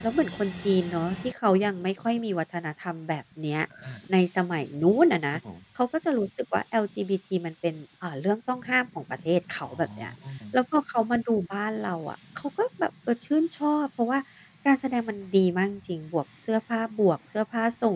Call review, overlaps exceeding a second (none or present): none